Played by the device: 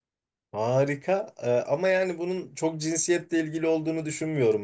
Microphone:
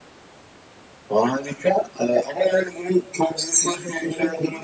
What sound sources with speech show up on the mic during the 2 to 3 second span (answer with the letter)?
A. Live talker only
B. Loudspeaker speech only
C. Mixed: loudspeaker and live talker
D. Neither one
B